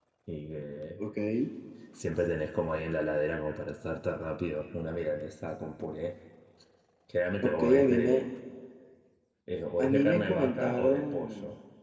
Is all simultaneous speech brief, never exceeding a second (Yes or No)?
No